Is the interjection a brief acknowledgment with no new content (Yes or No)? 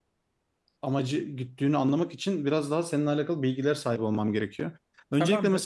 Yes